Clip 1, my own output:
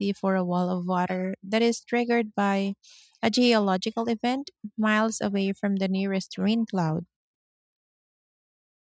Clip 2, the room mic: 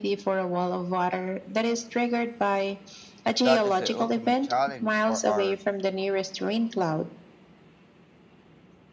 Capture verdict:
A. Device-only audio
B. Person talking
B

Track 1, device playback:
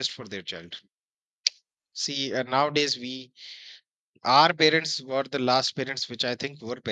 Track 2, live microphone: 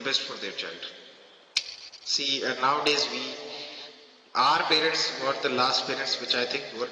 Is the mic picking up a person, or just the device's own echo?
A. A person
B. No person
B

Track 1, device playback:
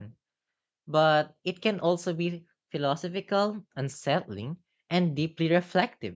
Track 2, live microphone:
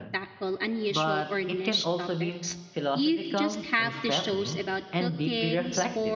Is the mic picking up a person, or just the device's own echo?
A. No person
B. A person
B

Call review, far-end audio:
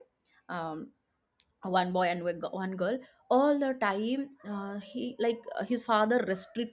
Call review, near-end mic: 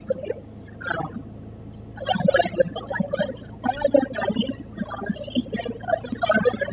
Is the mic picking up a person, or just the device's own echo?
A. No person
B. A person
A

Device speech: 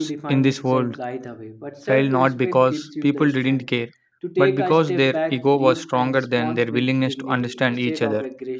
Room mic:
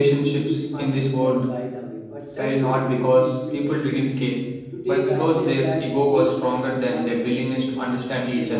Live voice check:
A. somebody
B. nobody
B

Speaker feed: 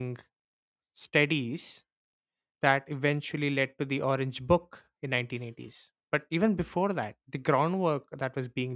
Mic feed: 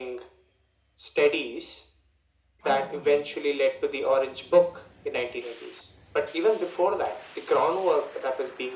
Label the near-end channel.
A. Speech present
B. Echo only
A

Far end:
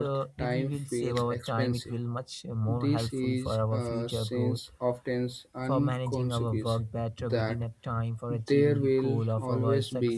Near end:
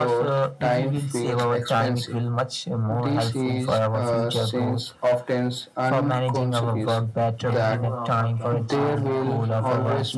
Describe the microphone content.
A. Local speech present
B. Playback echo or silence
A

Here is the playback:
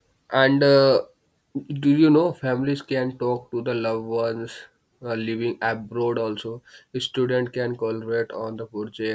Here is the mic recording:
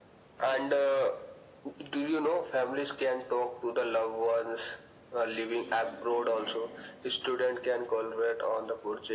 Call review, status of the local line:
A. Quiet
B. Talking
B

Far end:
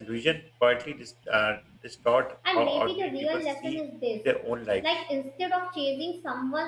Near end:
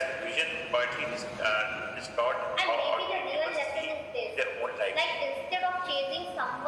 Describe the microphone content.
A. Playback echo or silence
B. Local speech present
A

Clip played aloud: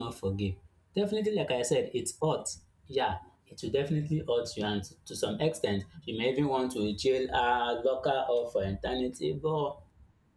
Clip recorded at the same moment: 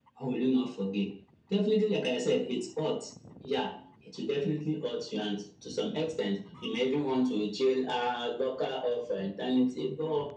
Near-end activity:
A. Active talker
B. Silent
B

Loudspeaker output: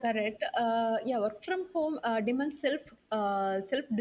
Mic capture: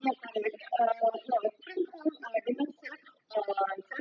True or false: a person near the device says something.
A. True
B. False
B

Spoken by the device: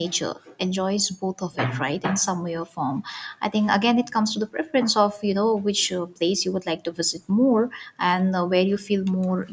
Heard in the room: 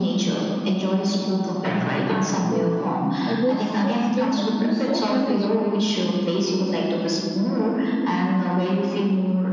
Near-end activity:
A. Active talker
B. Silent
A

